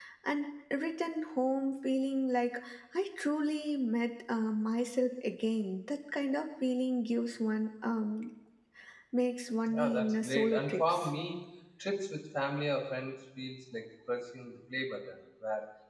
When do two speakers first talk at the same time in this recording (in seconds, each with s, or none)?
9.7 s